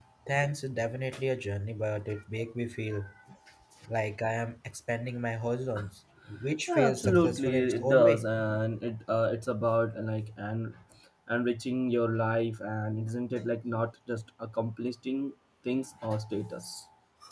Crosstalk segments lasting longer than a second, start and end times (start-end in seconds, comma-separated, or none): 6.7-8.2